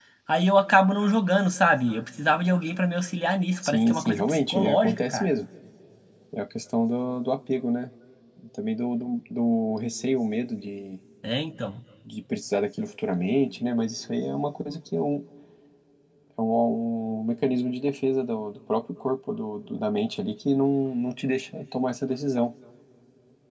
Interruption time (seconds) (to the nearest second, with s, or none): 4 s